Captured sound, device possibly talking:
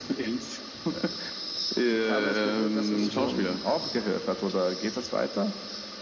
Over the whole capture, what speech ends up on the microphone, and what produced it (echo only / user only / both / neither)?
both